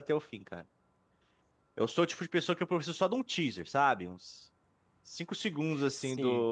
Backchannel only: Yes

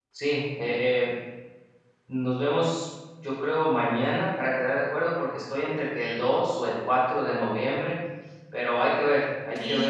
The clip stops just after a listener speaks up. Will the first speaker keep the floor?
No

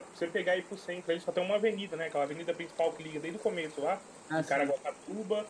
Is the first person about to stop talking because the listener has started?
No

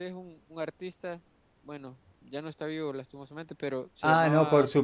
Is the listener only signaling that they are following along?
No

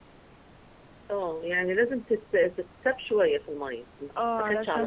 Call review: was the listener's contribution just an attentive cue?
No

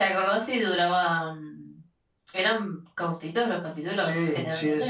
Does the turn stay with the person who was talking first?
No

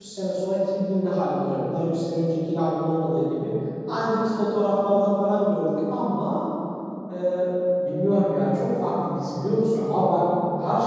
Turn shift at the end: No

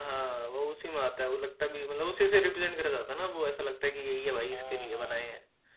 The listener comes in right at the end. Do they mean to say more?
Yes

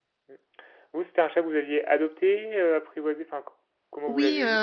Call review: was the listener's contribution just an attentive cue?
No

